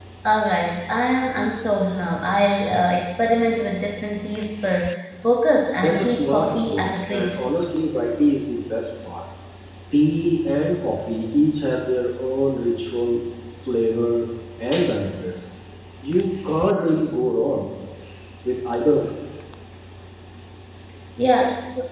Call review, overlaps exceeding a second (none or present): present